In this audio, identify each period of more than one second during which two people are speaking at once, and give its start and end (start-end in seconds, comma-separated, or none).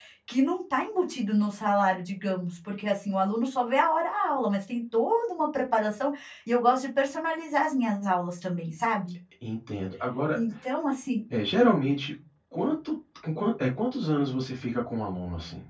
none